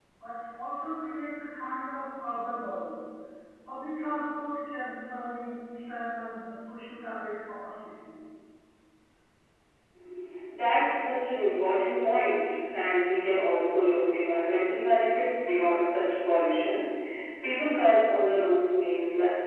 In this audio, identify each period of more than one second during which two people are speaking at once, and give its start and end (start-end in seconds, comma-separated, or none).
none